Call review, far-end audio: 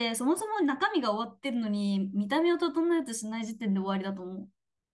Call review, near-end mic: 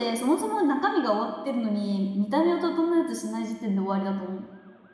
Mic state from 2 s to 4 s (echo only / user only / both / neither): echo only